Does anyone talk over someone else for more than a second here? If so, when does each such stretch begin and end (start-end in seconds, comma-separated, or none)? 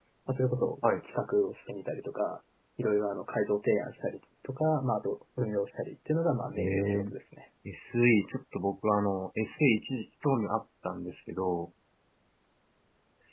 none